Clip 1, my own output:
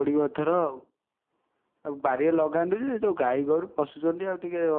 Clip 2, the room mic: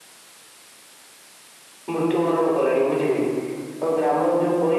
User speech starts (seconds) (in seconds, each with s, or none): 1.9 s